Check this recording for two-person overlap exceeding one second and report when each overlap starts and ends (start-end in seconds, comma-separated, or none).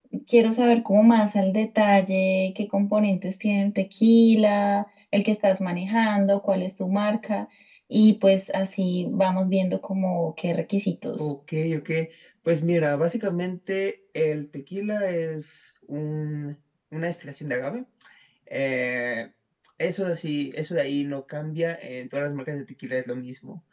none